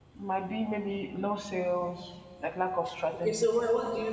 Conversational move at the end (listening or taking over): taking over